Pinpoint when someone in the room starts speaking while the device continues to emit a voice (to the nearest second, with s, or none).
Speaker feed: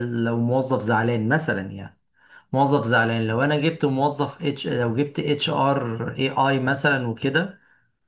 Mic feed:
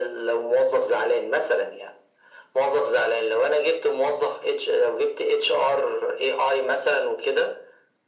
none